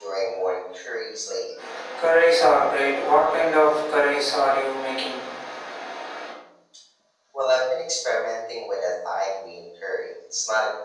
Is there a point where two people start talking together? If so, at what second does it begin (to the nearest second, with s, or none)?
none